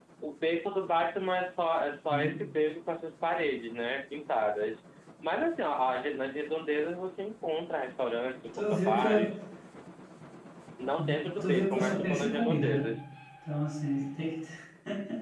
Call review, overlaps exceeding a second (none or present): present